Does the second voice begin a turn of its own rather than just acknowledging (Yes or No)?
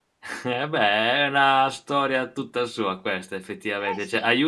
Yes